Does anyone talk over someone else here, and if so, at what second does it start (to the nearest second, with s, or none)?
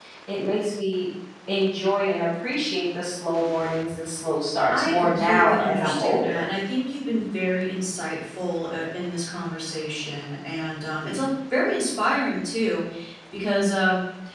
5 s